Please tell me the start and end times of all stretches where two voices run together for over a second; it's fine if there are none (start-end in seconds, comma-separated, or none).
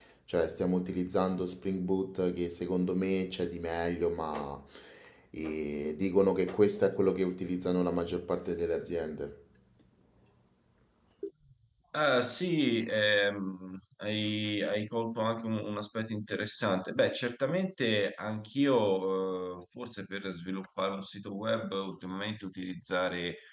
none